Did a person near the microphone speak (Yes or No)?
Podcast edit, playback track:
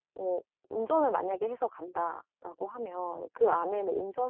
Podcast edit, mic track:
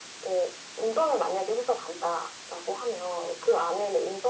No